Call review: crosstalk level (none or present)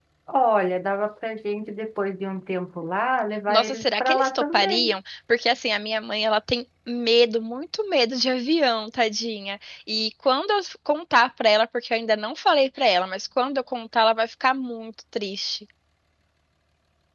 present